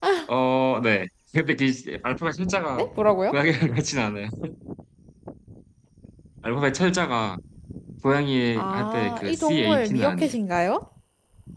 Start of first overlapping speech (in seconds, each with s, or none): 8.6 s